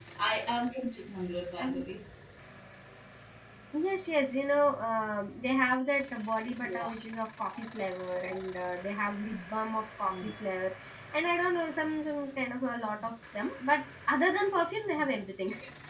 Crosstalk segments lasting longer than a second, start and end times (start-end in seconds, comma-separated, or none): none